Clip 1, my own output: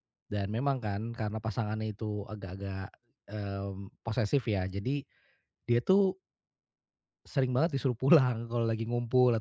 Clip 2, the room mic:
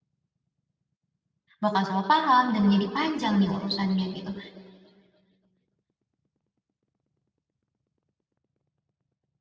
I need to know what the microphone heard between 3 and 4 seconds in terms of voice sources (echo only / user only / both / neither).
user only